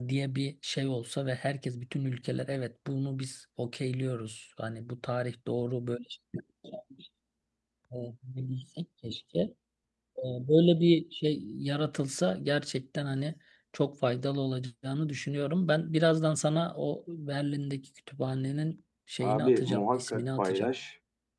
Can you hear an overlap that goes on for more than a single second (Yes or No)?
Yes